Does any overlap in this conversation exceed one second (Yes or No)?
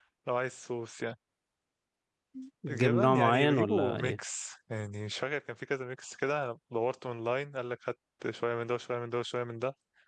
Yes